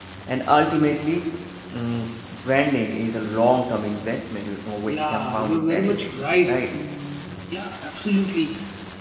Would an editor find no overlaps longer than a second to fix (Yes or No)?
No